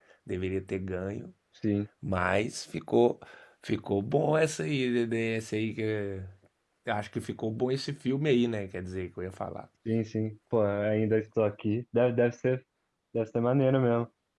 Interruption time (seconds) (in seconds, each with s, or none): none